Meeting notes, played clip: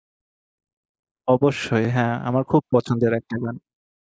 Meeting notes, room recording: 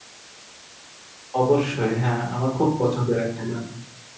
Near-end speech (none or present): none